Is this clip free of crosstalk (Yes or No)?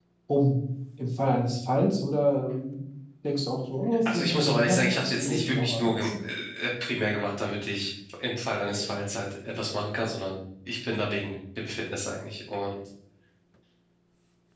No